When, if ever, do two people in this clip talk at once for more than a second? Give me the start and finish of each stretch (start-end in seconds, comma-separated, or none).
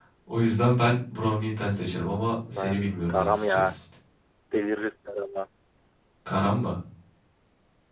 2.5-3.7